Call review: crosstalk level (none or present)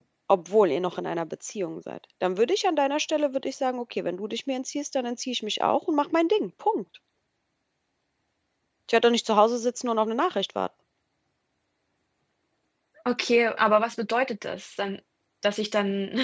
none